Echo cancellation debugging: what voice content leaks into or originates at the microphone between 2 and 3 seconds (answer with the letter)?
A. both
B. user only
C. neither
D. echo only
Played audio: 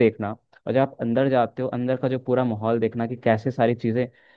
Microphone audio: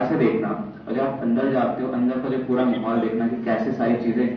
A